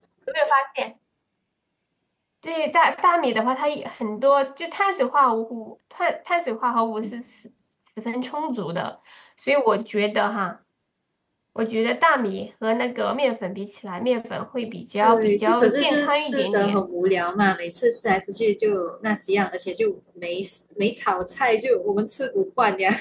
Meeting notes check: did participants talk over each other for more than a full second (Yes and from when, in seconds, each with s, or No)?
Yes, from 15.0 s